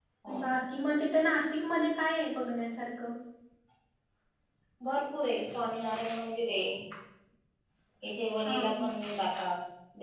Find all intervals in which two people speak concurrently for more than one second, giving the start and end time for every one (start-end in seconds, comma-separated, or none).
none